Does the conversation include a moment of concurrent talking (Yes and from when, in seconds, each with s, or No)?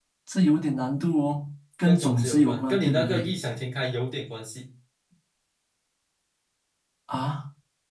Yes, from 1.8 s